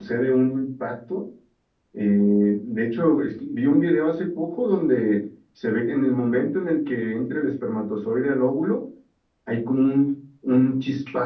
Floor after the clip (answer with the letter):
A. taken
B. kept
B